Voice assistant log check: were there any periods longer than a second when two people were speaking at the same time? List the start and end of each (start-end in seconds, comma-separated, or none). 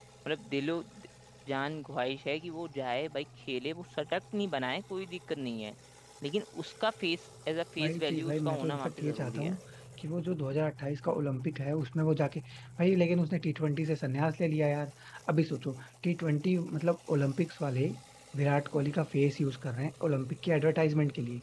7.8-9.6